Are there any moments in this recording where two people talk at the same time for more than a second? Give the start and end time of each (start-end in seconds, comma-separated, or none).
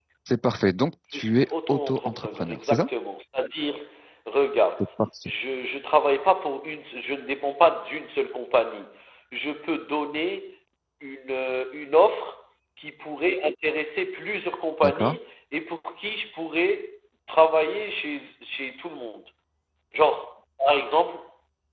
1.1-2.9